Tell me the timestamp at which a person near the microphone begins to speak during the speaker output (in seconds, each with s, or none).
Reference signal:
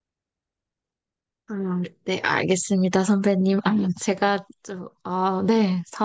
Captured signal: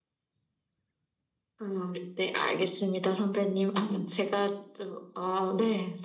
none